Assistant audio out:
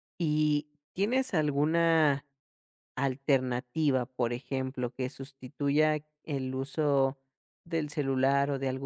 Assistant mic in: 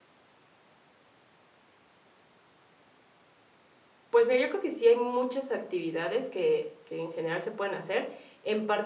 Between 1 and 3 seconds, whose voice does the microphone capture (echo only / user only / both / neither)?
neither